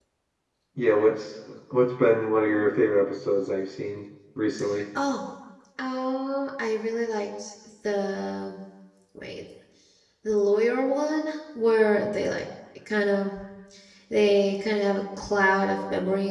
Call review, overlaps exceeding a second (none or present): none